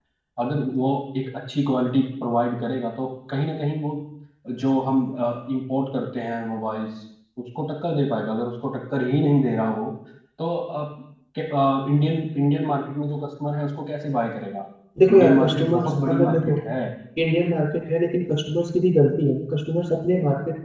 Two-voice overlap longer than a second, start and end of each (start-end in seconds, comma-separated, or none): 15.1-16.6